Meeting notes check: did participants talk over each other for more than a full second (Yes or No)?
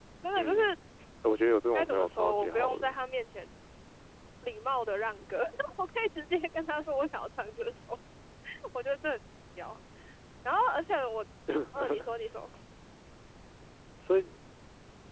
Yes